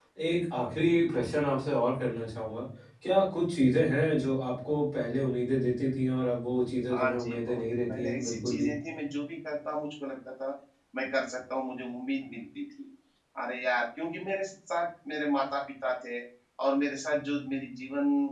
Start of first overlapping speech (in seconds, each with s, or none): 6.9 s